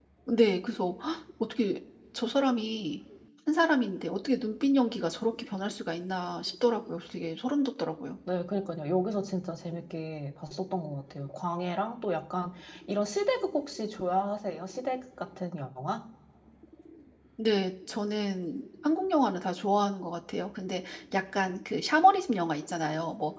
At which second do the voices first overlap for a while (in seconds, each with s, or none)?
none